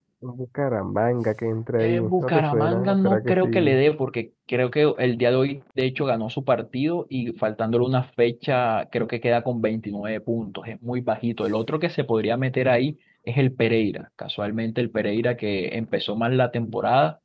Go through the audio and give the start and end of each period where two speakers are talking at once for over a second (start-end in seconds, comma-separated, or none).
1.8-3.8